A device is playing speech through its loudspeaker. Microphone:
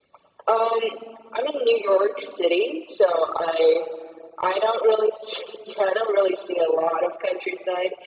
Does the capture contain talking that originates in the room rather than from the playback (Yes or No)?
No